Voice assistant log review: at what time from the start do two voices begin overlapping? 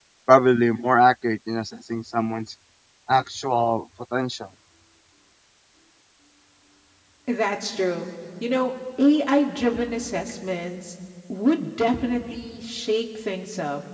none

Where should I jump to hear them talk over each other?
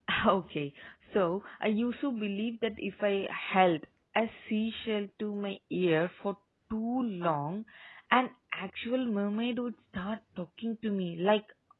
none

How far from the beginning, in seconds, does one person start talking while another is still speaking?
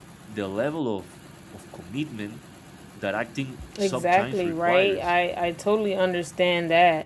3.8 s

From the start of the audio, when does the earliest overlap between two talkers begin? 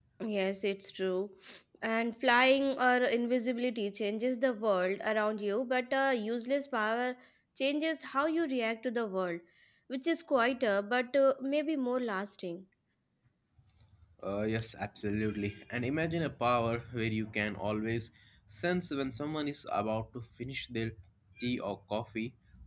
none

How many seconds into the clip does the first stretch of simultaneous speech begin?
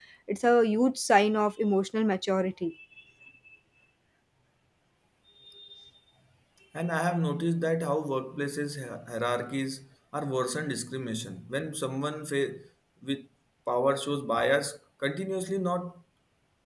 none

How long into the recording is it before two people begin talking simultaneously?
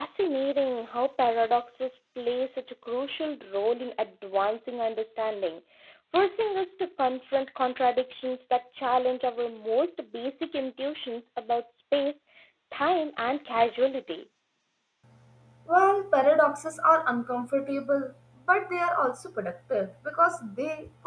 none

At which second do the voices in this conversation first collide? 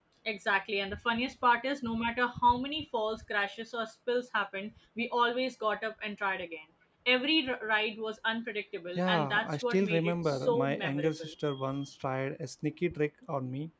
9.0 s

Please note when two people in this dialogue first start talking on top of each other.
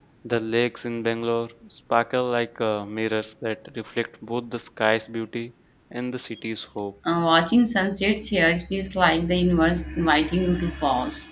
none

